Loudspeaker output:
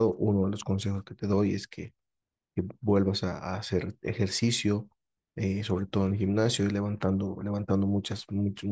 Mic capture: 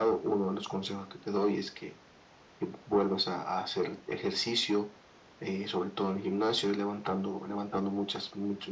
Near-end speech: none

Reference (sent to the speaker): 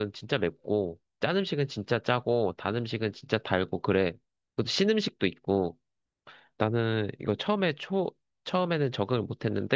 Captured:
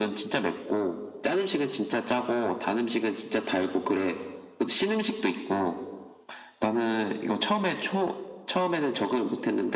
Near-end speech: none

